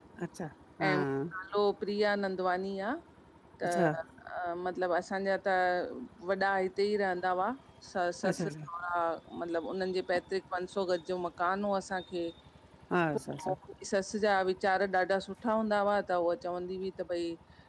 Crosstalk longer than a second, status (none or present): none